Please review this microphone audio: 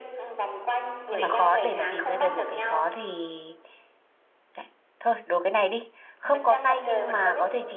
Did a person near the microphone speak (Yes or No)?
Yes